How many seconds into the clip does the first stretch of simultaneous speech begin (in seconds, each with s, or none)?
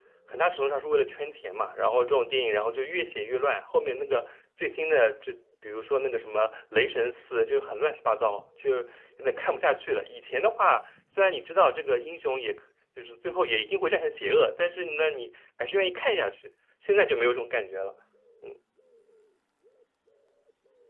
none